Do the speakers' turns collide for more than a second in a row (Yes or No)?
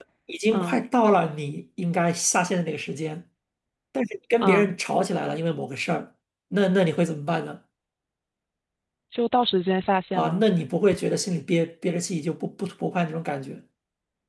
No